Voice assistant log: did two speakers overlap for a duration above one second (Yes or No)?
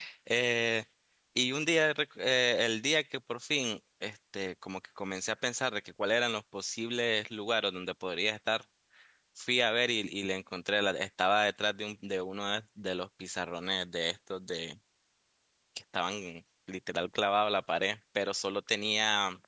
No